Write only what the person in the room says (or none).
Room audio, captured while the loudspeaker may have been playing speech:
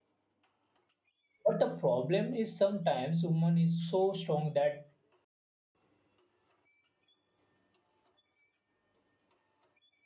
But the problem is sometimes woman is so strong that